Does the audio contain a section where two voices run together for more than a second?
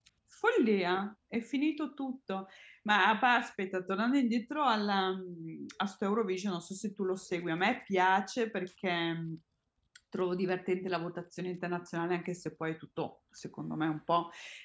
No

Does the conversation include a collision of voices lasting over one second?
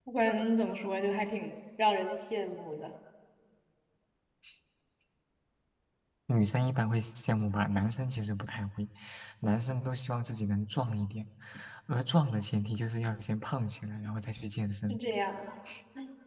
No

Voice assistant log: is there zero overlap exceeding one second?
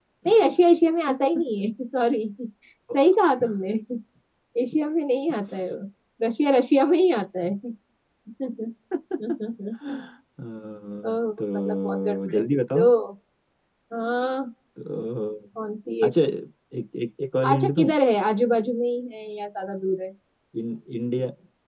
No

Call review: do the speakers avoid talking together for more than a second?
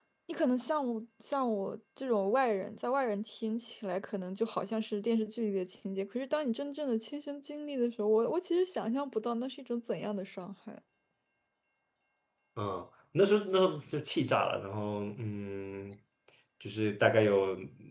Yes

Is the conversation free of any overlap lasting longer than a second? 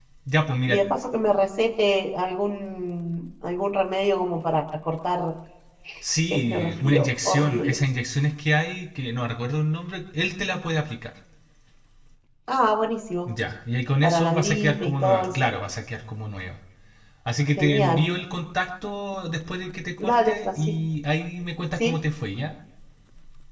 No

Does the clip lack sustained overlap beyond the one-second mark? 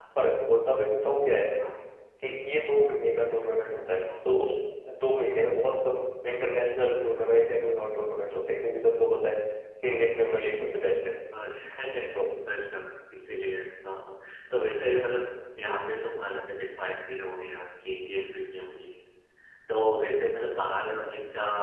Yes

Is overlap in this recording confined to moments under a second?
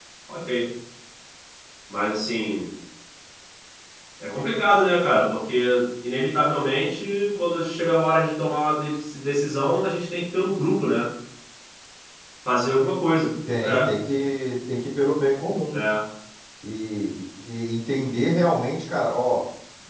Yes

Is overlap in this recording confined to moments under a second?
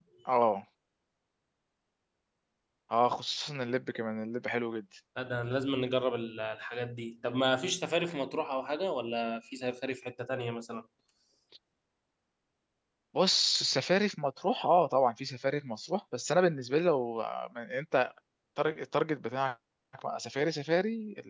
Yes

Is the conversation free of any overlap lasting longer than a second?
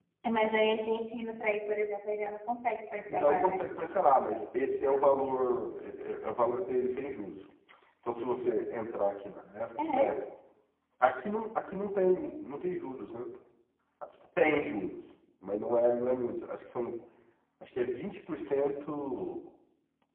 Yes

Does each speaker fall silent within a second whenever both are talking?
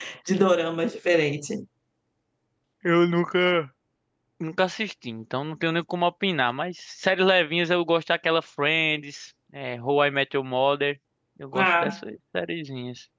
Yes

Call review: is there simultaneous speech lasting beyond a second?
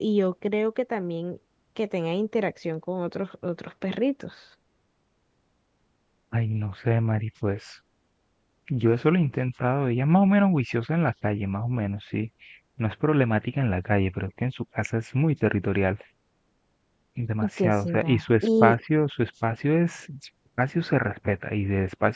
Yes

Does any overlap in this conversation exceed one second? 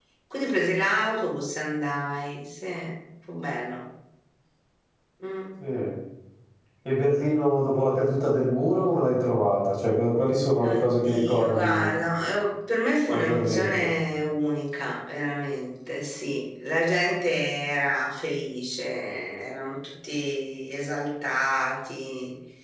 Yes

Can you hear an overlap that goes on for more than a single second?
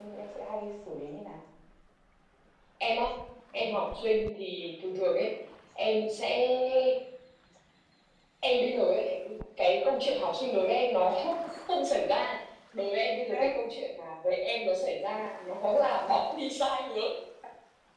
No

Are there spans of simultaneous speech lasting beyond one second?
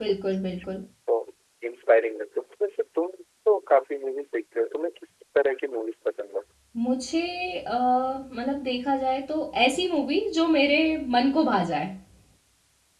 No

